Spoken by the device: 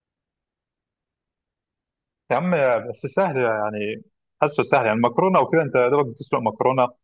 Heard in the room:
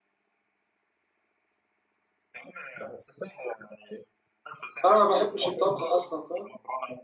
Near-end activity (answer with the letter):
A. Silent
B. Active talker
B